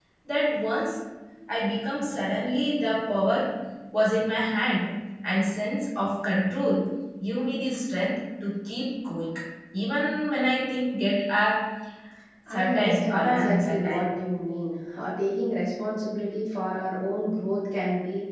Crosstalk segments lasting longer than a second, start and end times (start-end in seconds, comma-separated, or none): 12.5-14.1